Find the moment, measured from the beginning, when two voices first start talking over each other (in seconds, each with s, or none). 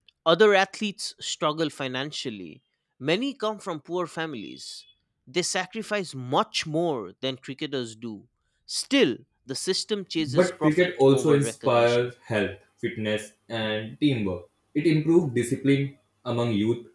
10.2 s